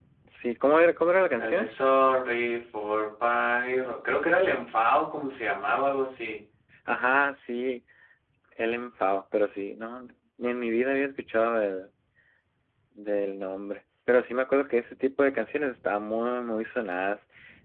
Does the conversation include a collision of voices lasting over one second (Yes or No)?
No